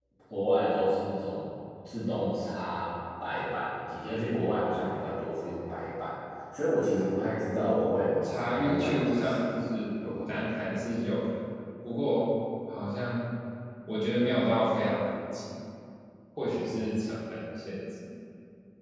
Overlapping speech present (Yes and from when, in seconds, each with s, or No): Yes, from 7.5 s